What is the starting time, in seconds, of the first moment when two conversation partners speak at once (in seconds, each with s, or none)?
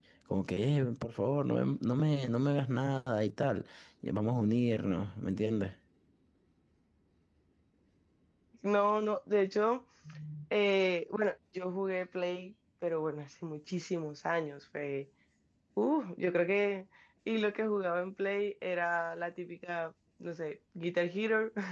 none